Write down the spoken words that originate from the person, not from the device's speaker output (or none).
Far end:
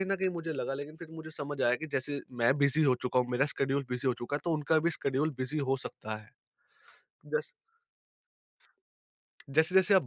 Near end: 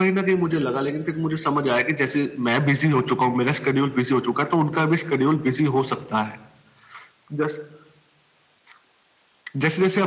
none